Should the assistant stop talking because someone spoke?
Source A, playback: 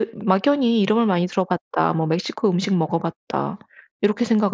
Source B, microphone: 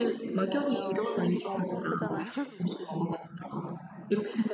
Yes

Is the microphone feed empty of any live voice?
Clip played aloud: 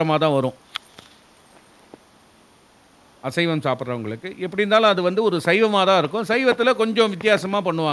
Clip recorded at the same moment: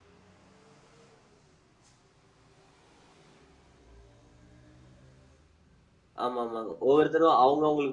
No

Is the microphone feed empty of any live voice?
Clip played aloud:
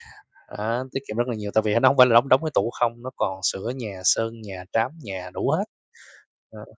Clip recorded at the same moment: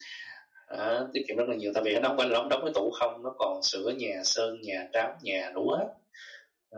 Yes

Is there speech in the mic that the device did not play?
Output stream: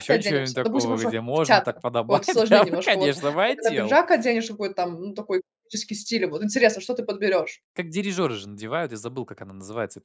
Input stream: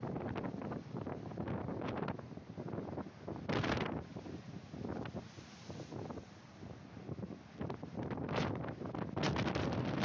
No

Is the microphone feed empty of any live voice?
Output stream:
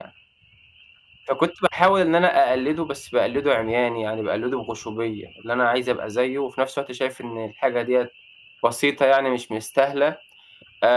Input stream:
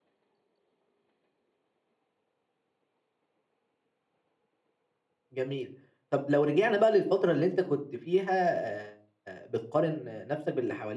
No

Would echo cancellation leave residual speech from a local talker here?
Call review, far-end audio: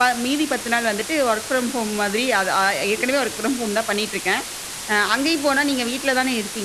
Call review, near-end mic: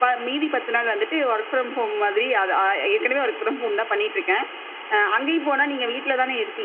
No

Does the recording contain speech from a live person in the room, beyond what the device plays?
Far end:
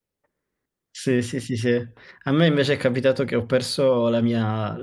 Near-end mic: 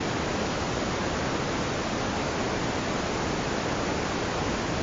No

